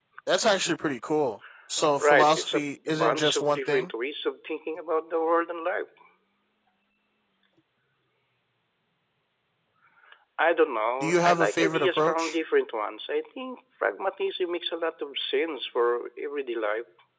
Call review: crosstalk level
present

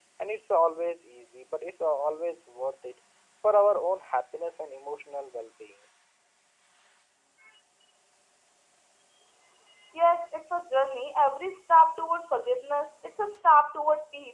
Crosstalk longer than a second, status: none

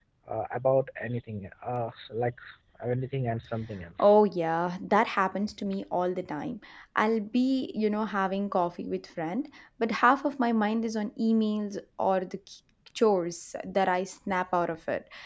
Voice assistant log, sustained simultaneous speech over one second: none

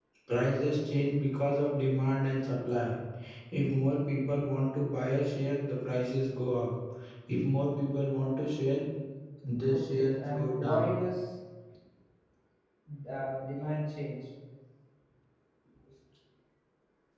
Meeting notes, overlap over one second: present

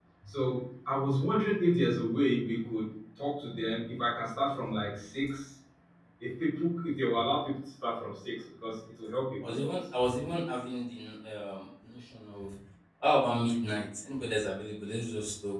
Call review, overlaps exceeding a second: none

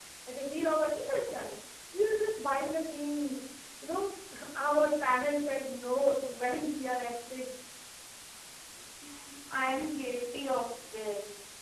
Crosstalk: none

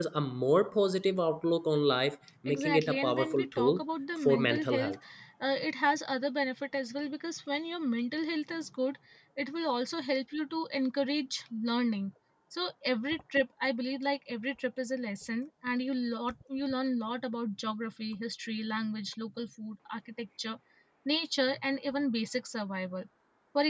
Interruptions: present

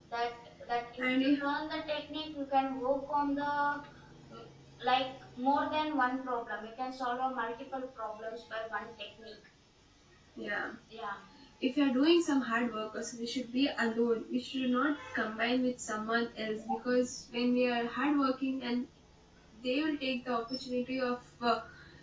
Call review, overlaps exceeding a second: none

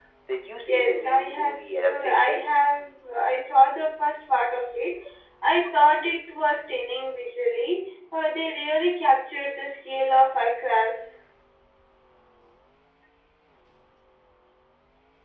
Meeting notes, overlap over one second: present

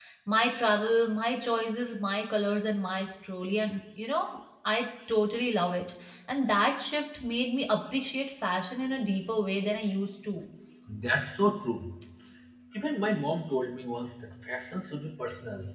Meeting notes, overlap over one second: none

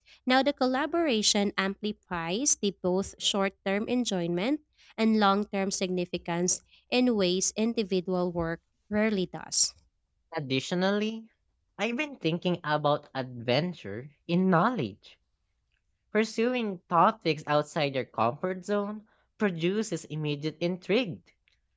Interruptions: none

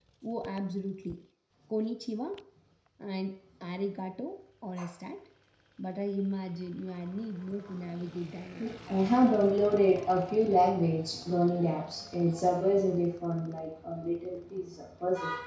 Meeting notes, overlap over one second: none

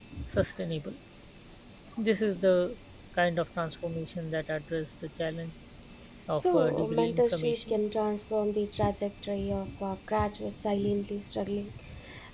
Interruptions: present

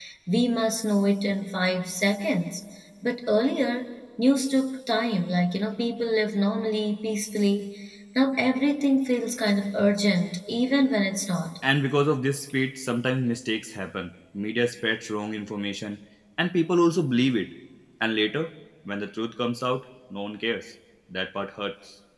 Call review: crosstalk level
none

